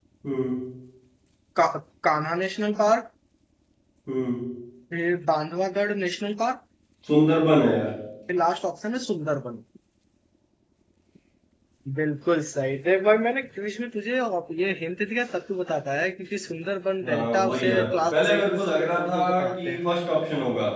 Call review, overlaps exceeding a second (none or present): present